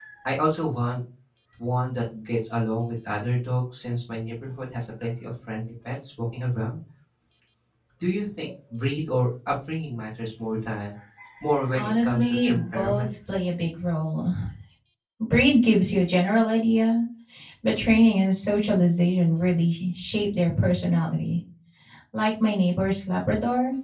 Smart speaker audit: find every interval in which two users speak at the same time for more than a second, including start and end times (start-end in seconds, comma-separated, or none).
11.8-13.1